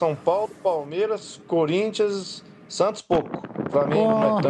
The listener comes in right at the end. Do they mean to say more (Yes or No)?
No